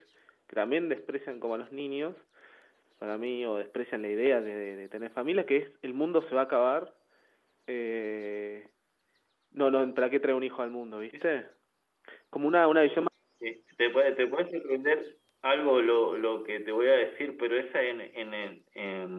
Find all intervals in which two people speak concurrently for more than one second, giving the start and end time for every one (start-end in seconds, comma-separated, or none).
none